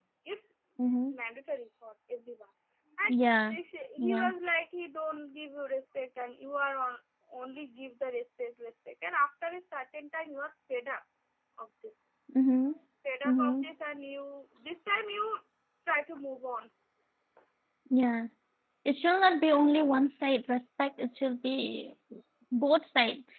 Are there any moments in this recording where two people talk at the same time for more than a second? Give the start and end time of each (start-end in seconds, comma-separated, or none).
none